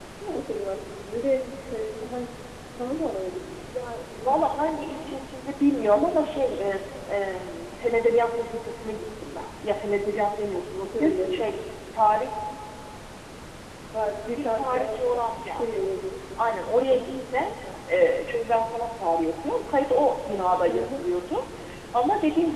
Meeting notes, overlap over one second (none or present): present